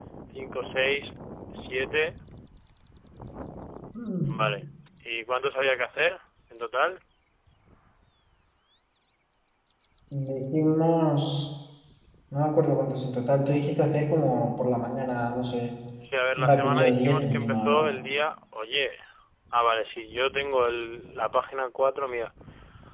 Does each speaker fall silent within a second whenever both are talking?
No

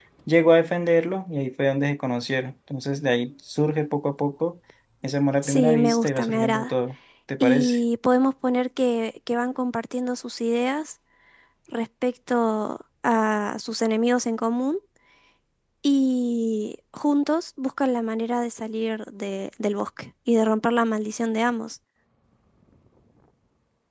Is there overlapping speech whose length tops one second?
Yes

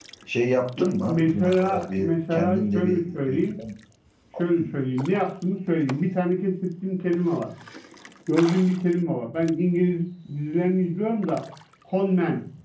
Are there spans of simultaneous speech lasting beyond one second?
Yes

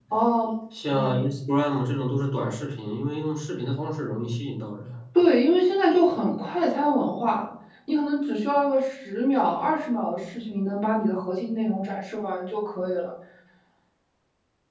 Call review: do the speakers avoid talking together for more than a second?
Yes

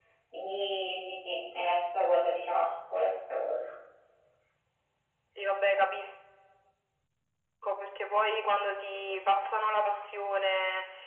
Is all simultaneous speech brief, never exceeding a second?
Yes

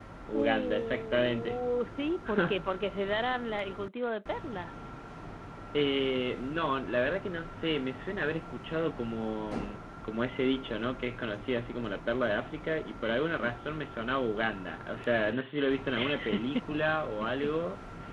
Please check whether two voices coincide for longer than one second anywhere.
Yes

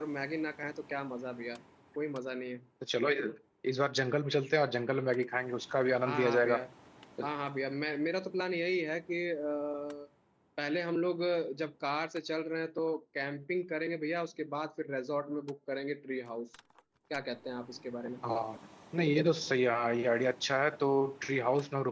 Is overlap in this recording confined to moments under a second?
Yes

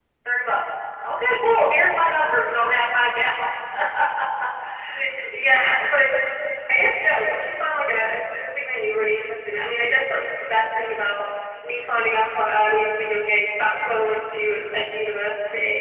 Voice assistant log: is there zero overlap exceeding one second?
Yes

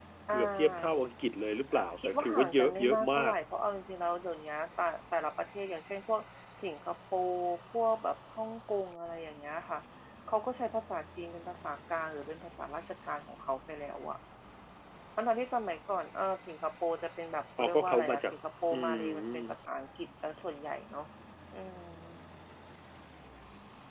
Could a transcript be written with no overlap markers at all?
No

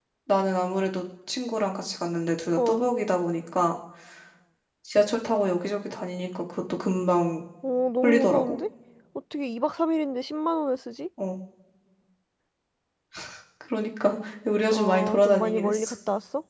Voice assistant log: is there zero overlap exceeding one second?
No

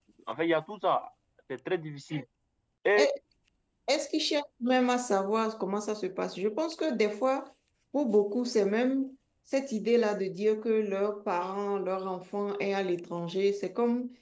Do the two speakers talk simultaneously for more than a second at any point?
No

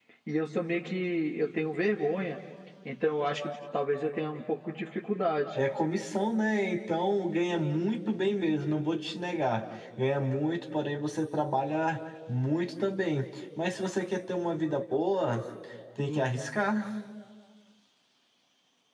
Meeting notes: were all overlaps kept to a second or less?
Yes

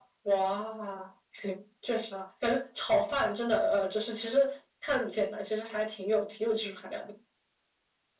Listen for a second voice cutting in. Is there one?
No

